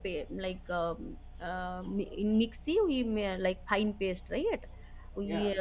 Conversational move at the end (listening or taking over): listening